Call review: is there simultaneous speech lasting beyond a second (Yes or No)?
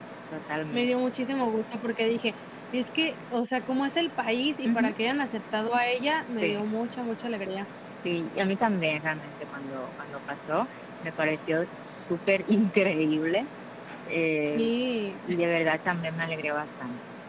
No